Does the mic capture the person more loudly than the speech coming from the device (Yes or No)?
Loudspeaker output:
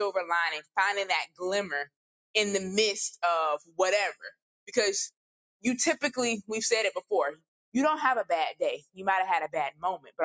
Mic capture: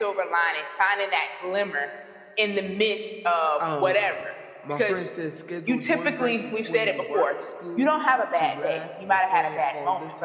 No